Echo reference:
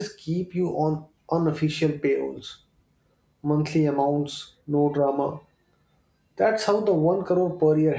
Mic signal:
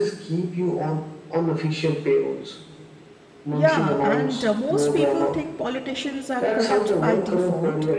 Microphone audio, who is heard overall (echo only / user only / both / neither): both